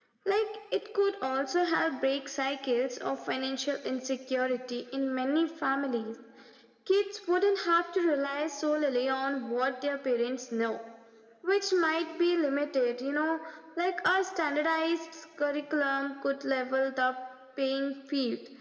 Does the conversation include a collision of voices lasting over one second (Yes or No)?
No